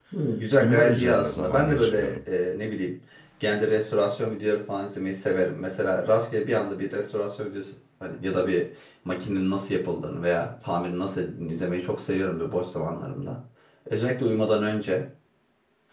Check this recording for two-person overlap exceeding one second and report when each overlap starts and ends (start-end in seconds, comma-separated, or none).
0.6-2.3